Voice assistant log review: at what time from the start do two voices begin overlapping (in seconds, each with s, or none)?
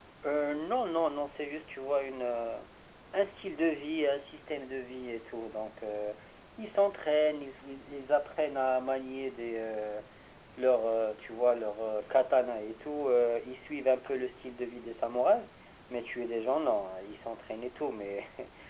none